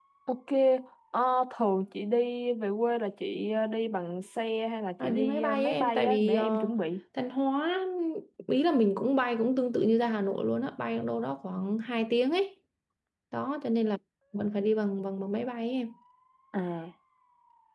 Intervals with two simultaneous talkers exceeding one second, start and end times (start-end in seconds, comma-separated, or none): 5.0-6.7